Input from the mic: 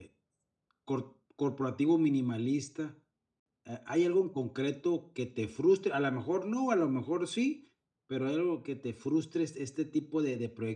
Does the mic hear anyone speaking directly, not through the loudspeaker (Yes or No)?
Yes